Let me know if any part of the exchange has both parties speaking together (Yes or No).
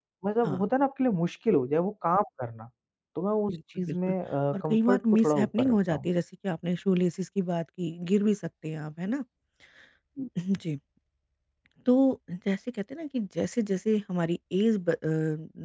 Yes